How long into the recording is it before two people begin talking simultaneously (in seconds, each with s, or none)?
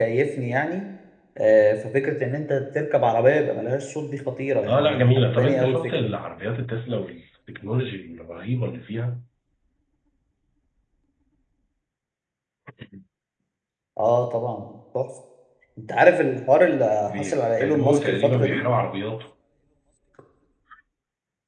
4.7 s